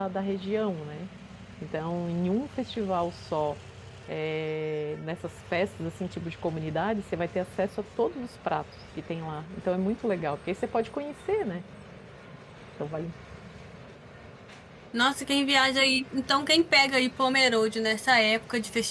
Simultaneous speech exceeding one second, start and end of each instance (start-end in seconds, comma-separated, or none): none